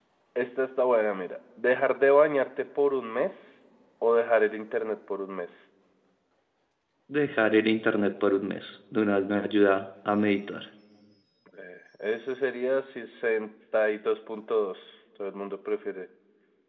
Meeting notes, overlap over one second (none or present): none